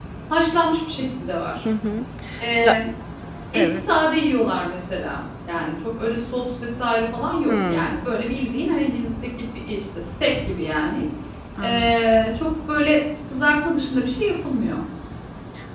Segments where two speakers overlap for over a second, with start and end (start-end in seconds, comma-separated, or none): none